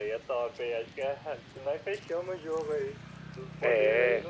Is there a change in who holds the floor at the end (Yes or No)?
No